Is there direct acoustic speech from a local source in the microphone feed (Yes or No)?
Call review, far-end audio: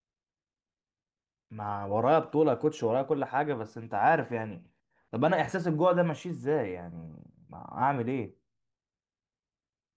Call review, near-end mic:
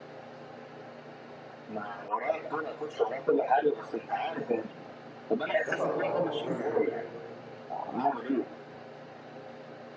Yes